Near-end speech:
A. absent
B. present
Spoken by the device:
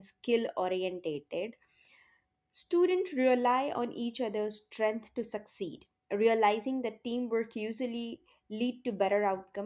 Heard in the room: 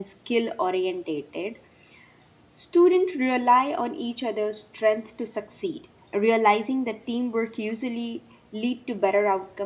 A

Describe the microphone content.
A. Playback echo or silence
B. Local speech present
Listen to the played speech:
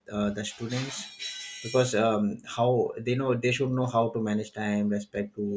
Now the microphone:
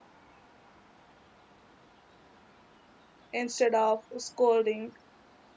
B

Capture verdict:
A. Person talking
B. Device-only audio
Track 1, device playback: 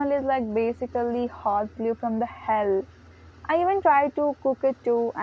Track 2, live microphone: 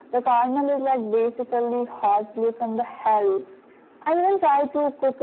B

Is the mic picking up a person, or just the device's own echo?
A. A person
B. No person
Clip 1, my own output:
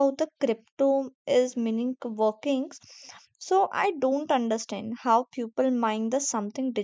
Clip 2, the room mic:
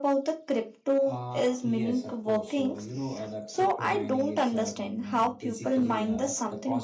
A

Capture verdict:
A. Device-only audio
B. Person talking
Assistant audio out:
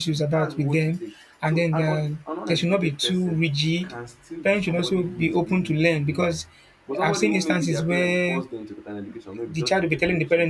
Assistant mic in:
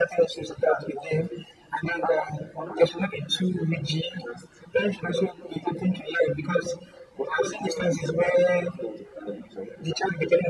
A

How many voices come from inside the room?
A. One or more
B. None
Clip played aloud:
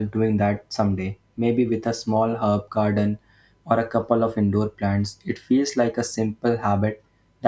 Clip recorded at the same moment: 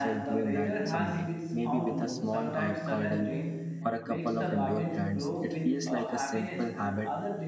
A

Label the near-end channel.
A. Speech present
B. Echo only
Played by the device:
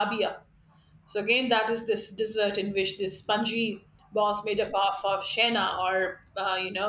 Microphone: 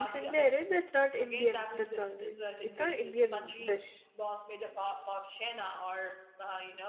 A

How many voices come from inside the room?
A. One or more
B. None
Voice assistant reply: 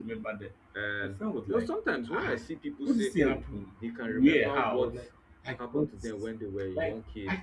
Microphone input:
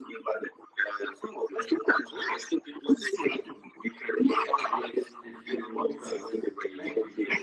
A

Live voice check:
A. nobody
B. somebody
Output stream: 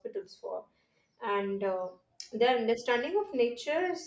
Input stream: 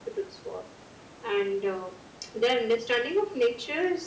A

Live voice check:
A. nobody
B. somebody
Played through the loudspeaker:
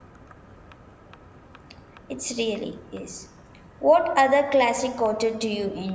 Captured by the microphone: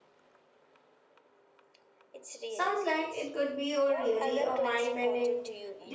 B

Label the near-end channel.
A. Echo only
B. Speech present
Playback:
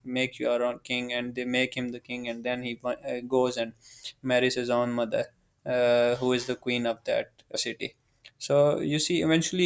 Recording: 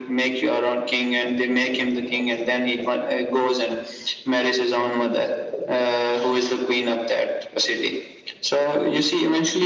A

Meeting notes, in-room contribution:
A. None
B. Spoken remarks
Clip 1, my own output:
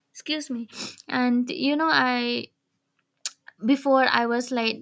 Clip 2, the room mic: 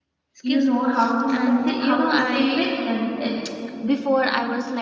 B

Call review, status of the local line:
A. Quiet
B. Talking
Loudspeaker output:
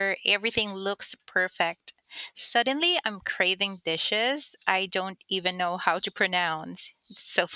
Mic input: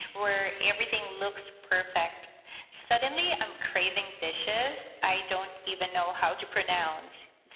A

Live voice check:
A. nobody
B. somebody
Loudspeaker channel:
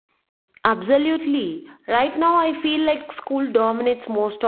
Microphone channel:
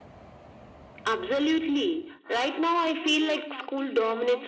B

